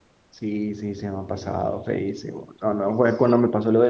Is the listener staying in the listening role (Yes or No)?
Yes